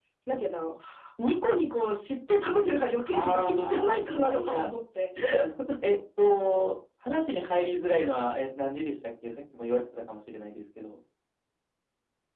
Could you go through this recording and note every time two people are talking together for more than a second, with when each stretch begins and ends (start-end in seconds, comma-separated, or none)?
3.1-4.7